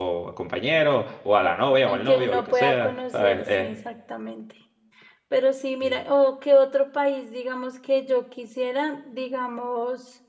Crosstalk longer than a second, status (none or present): present